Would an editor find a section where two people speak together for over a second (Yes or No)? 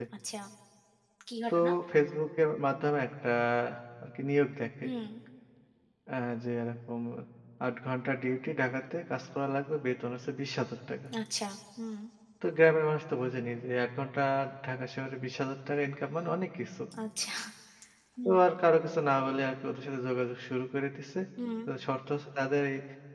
No